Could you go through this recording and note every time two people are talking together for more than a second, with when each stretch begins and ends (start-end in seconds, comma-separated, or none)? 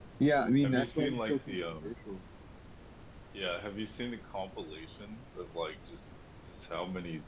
0.6-1.8